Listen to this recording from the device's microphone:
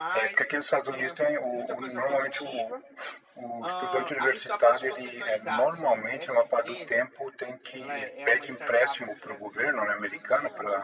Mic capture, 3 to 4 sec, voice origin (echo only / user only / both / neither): both